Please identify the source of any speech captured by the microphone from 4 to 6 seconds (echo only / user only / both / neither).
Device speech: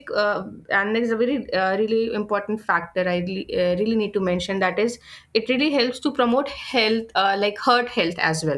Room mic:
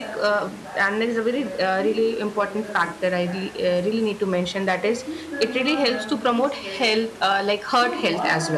both